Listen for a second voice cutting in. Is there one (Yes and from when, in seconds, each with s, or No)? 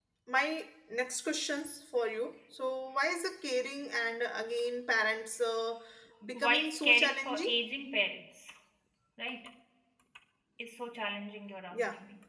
Yes, from 6.3 s